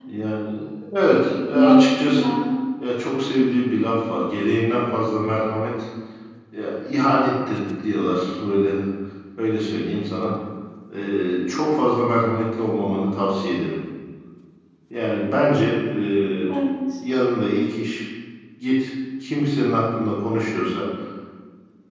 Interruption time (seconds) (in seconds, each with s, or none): 1.1 s